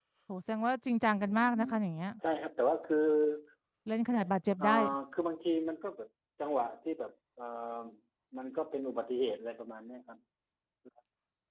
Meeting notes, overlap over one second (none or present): none